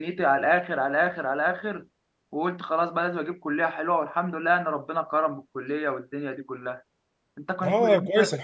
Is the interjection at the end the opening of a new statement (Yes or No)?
Yes